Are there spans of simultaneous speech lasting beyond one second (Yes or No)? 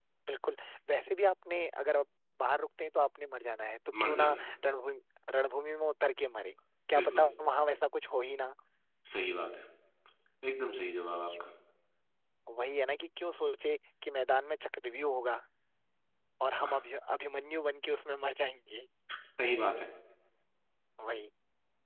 No